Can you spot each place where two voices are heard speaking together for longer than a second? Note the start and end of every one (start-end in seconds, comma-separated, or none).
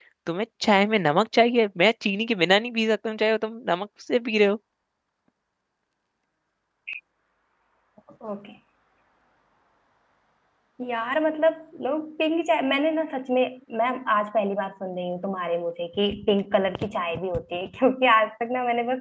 none